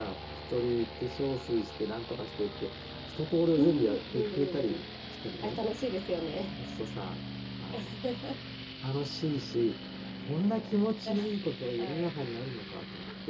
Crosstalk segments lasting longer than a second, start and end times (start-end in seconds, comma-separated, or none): 3.6-4.8